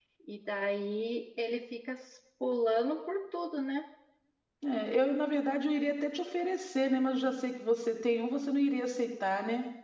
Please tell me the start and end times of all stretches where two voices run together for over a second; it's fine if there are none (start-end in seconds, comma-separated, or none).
none